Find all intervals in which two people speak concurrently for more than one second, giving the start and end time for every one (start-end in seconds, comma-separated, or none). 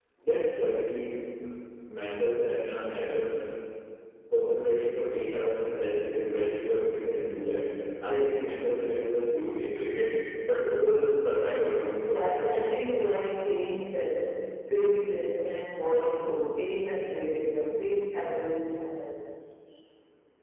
11.4-12.7